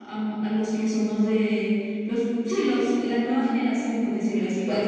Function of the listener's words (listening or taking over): taking over